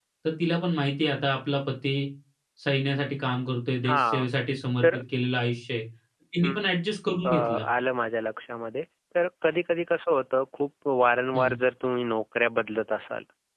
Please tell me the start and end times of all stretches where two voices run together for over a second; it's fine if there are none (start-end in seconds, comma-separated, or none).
none